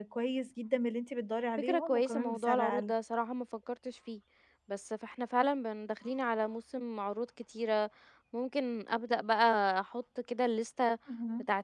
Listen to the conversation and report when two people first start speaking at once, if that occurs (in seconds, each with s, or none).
1.6 s